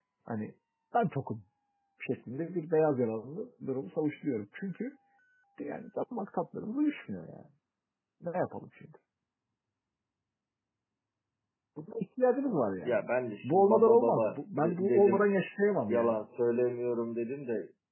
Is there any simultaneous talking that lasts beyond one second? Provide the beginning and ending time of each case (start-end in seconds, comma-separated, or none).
13.4-15.3